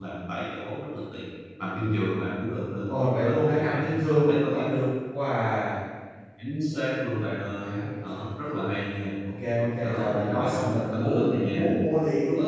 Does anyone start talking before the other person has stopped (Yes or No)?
Yes